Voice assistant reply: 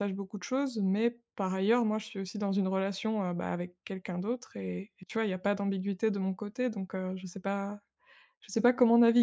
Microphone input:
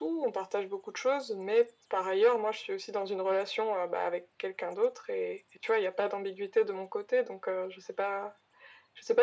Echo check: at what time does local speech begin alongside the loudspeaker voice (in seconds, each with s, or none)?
none